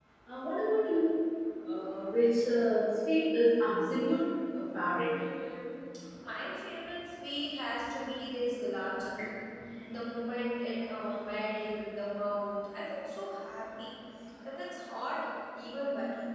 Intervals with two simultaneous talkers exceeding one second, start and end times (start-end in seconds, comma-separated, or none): none